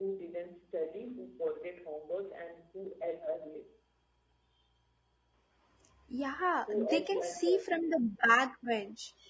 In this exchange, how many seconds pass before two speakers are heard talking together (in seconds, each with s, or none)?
6.7 s